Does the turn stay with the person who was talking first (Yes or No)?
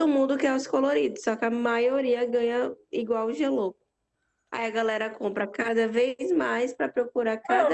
No